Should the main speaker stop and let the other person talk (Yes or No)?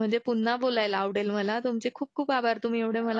No